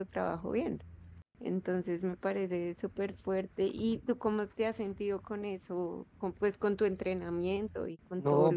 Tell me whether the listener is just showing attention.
No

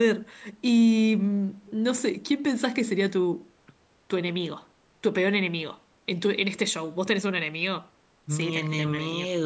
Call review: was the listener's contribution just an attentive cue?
No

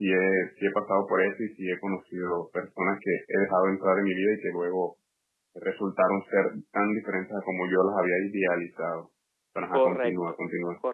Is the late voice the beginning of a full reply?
Yes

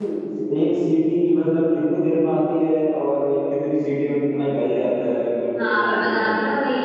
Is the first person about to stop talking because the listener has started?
Yes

